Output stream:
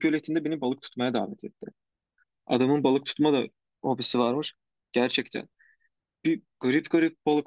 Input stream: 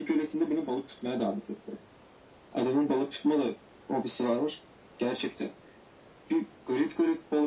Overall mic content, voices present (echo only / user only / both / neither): echo only